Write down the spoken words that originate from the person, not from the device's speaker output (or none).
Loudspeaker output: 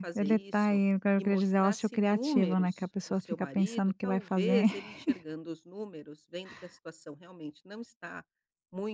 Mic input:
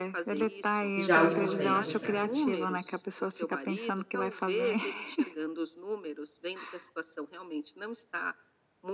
já há algum tempo já.